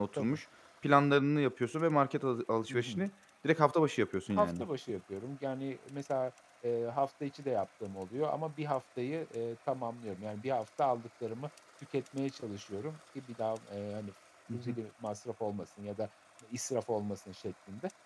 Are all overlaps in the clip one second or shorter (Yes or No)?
Yes